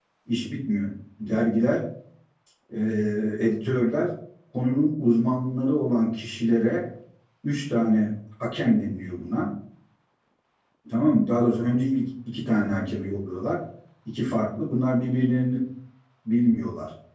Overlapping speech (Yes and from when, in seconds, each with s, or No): No